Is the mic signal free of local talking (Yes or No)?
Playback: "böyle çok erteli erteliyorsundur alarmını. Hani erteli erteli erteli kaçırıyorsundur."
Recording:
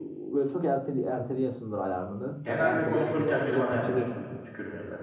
No